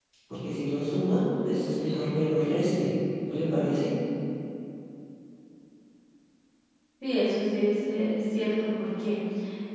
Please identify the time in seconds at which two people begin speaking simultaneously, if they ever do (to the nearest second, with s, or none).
none